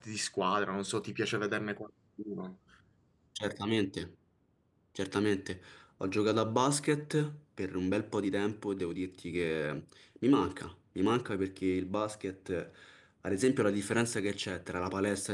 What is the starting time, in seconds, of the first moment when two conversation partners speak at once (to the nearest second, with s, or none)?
none